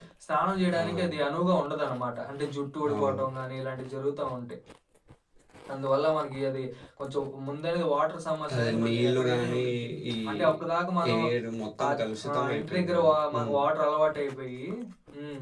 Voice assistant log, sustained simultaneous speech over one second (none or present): present